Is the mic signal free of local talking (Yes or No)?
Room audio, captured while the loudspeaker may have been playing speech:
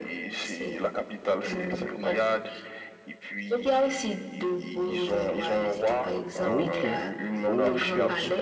No